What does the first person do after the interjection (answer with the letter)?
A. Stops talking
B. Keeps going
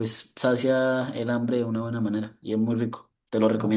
A